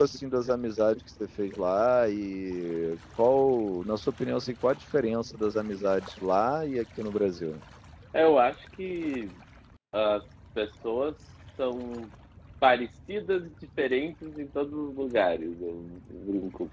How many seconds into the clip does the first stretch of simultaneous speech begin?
none

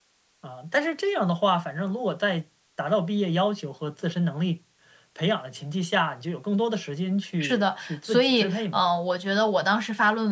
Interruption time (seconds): 7.4 s

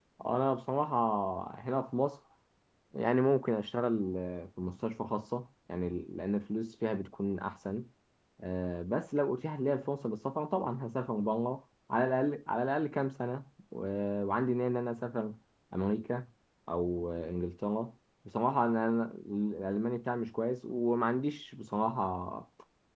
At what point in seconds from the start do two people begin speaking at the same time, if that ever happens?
none

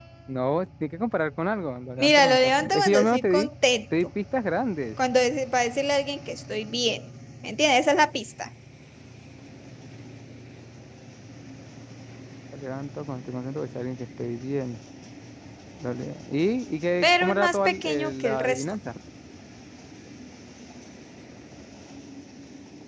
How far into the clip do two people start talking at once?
2.0 s

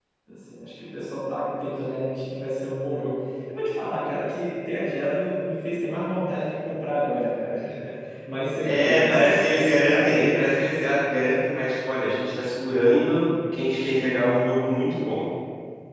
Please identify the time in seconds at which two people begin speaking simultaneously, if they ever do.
8.6 s

